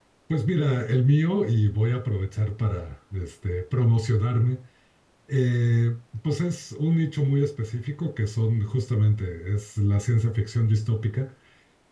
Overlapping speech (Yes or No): No